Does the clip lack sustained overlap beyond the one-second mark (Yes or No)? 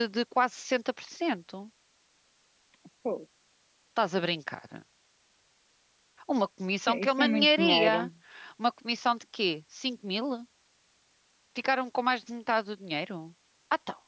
No